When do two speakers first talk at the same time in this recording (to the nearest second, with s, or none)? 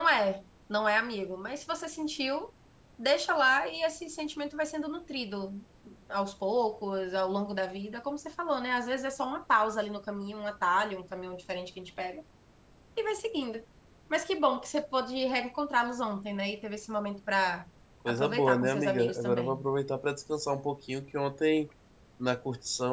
18 s